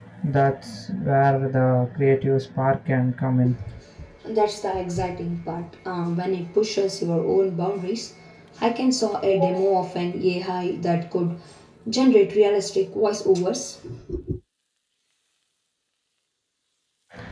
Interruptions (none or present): none